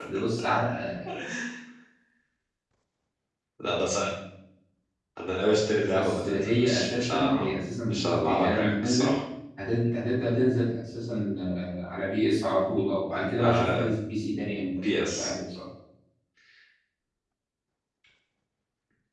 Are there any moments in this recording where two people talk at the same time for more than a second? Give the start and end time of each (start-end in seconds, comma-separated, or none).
5.9-7.5, 7.9-9.1